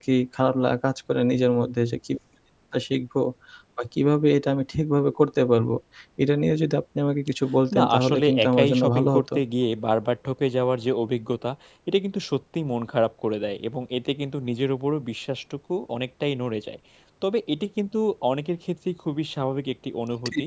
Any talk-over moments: Yes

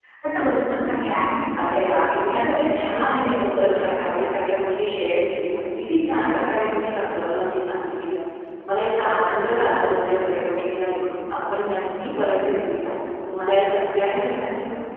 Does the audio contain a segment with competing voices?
Yes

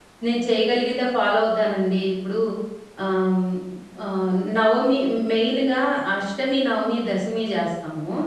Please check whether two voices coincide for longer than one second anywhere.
No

